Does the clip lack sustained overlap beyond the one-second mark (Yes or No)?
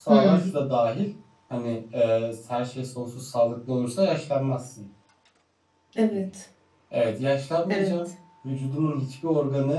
Yes